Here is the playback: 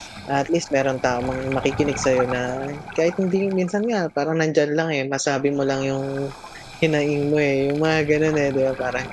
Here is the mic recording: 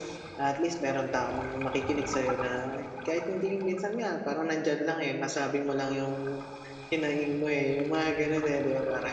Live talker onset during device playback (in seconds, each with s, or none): none